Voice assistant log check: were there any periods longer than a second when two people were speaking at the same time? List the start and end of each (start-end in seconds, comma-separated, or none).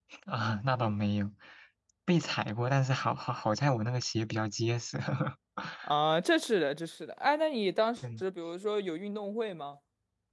none